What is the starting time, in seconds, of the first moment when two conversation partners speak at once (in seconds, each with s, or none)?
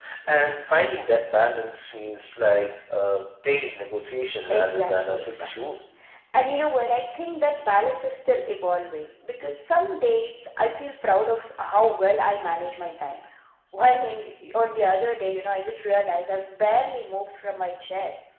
4.5 s